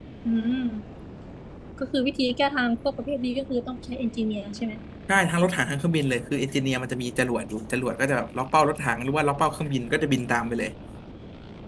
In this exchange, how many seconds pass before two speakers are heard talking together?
none

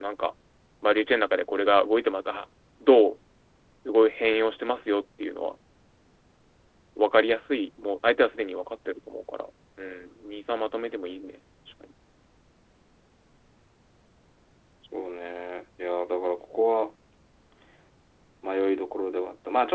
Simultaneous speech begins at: none

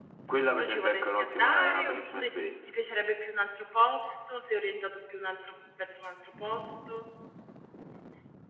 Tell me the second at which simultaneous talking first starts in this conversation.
0.6 s

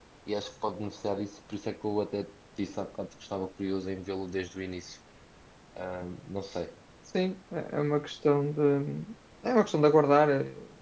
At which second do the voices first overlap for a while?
none

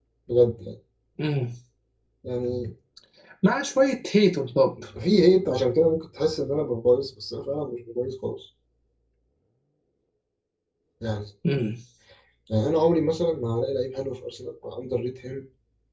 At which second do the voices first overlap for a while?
none

